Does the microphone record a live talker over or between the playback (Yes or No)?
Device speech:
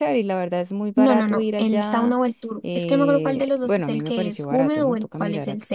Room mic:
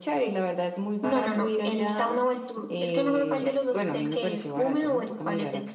No